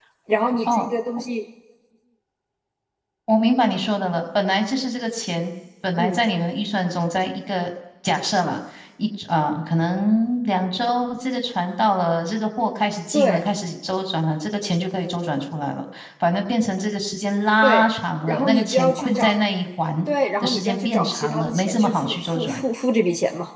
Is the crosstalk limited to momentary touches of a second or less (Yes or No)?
No